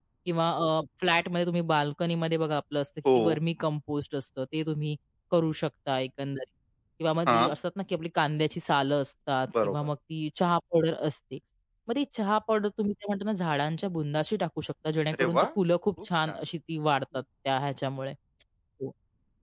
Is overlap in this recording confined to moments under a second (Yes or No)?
Yes